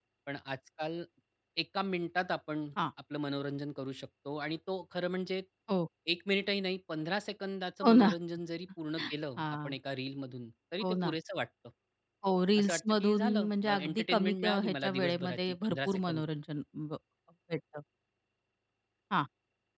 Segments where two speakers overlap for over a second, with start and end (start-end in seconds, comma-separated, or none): 12.6-16.2